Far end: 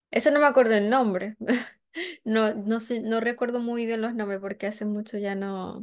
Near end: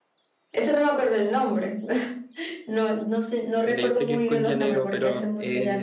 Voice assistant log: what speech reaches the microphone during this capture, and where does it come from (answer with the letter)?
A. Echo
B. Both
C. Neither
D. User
B